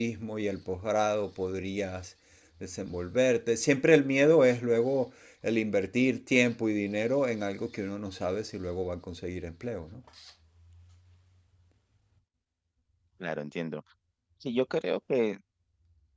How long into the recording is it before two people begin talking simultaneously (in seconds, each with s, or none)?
none